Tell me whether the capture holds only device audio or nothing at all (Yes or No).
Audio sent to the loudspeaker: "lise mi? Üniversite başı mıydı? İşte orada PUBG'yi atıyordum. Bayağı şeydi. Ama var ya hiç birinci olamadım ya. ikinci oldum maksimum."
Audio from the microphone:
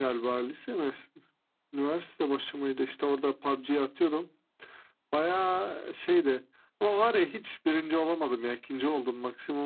Yes